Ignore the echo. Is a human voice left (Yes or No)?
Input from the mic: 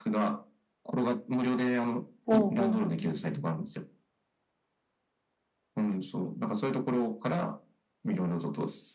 Yes